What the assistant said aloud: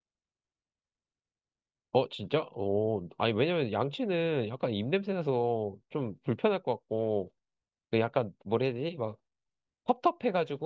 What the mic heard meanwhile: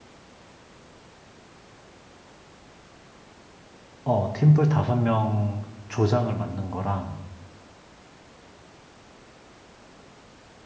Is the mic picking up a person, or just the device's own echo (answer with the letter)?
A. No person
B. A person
B